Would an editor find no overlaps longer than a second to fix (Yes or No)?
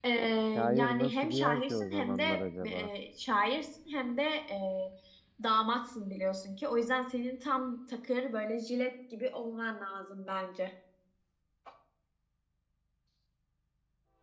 No